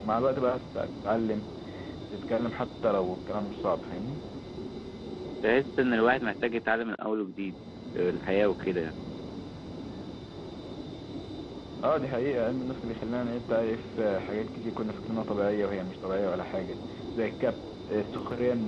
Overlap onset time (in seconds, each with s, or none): none